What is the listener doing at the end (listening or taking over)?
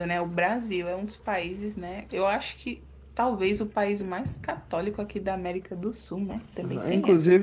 taking over